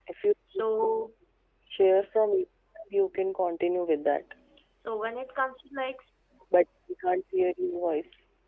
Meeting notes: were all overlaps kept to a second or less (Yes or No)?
Yes